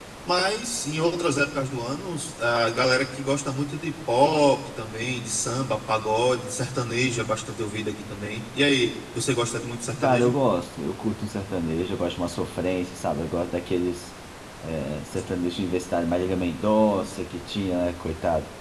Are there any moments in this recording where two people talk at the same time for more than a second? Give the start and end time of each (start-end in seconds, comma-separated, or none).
none